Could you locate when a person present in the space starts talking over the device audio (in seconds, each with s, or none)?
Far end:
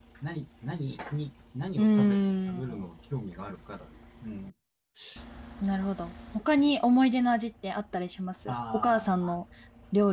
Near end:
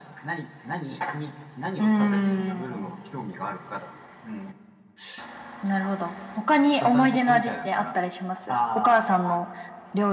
6.8 s